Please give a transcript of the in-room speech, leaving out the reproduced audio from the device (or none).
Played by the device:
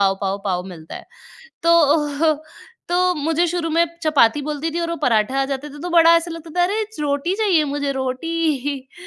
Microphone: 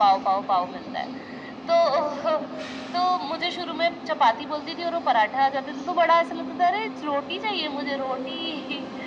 none